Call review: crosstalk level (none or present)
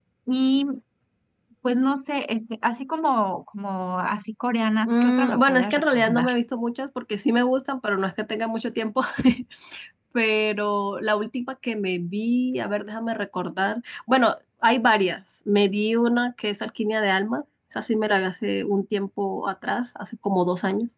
present